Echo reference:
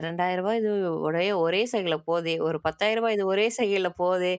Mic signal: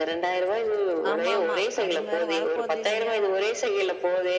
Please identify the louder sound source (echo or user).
echo